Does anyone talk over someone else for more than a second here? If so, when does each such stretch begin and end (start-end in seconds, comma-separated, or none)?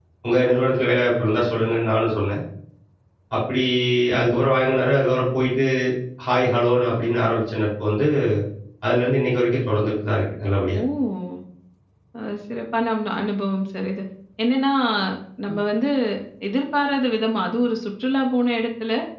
none